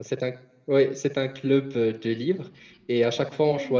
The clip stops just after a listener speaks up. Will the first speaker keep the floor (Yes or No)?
Yes